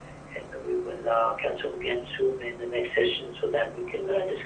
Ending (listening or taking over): taking over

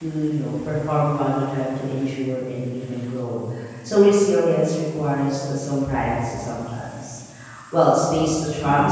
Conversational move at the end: listening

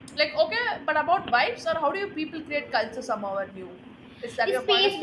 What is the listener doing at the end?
taking over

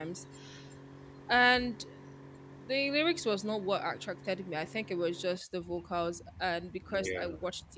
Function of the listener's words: listening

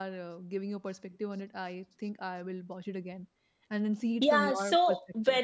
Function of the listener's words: taking over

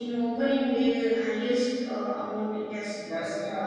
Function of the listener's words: taking over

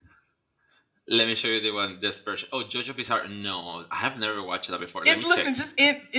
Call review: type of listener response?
taking over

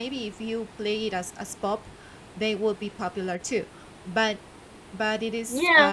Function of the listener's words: listening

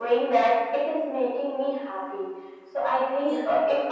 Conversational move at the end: listening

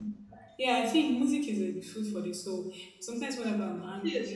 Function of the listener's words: listening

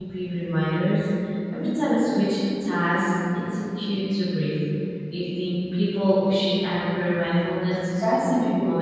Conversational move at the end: taking over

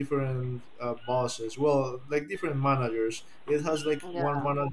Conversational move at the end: listening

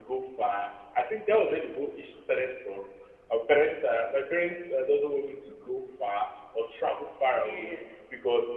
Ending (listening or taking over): listening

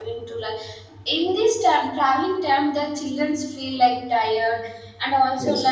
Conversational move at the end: listening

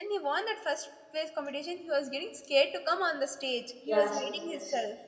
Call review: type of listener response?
taking over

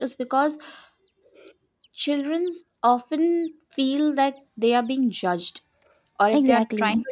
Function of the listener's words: listening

